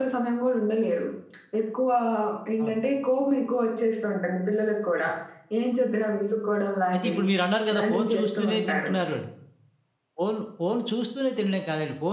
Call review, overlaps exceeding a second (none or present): present